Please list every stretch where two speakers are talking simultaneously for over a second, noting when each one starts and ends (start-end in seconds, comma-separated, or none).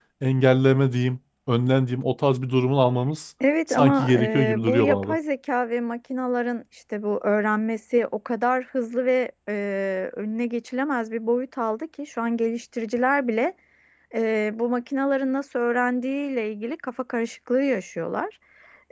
3.7-5.2